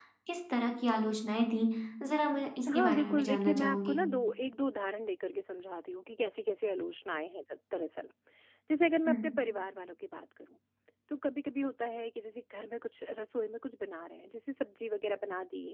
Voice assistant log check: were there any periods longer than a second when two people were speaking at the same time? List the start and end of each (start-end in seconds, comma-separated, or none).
2.7-4.0